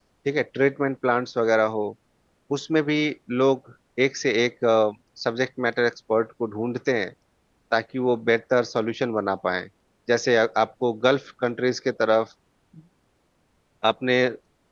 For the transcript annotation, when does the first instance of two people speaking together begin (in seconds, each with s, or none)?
none